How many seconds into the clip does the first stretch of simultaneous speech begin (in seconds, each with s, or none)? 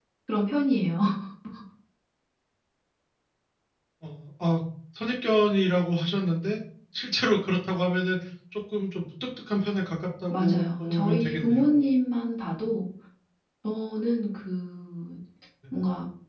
10.3 s